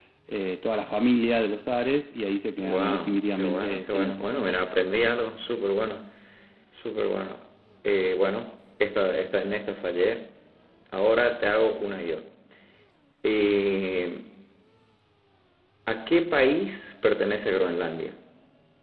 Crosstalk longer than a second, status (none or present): present